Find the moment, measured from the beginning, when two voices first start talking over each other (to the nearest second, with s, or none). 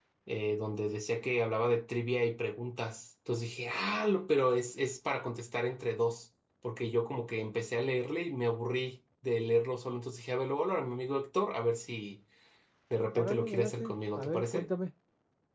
13 s